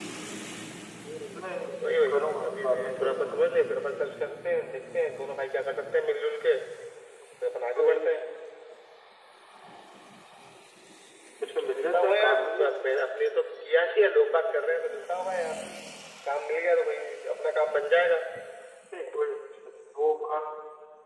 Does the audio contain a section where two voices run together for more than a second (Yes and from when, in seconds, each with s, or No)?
Yes, from 2.1 s